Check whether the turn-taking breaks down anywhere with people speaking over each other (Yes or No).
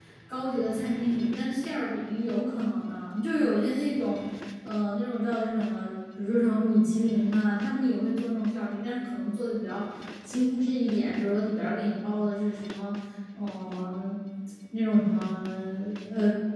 No